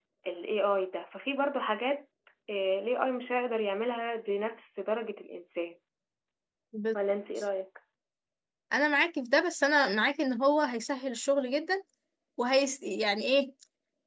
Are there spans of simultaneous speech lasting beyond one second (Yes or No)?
No